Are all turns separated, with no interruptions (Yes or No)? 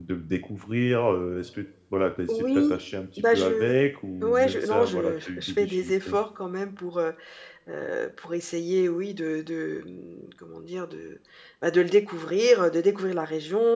No